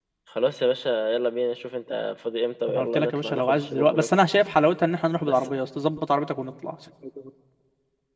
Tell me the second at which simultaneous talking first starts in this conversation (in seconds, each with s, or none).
2.7 s